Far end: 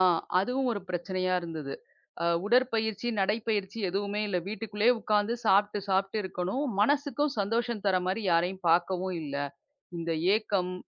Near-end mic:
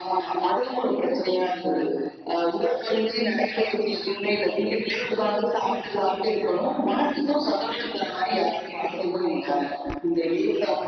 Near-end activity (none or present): none